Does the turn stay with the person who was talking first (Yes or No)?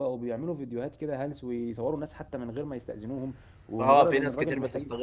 No